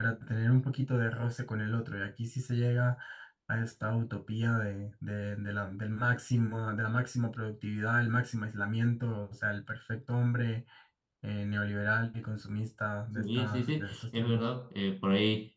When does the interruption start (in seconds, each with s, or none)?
13.2 s